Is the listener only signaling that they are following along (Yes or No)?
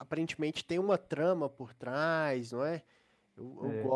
Yes